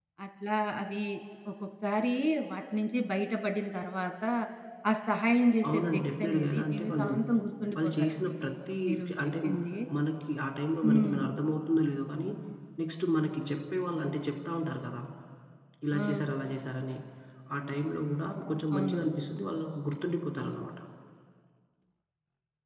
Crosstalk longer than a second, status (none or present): present